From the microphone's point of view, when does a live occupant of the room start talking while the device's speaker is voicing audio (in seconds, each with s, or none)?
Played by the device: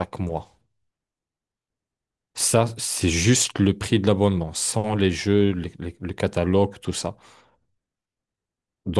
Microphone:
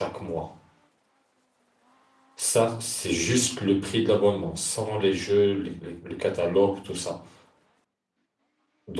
none